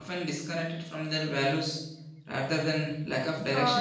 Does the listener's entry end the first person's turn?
Yes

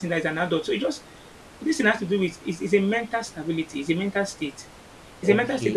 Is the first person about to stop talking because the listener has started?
Yes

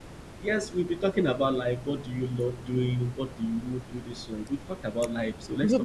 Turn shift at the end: Yes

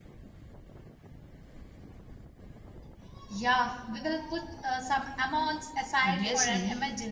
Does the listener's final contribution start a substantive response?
Yes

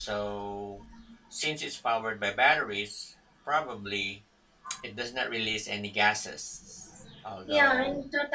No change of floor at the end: No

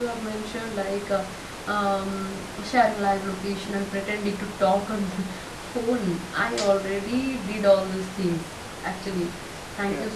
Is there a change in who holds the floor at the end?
No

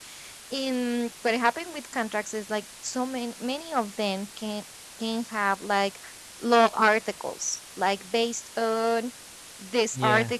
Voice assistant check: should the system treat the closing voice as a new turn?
No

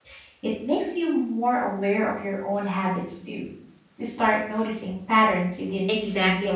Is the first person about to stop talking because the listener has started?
Yes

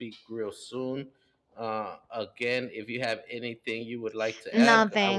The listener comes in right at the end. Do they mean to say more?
Yes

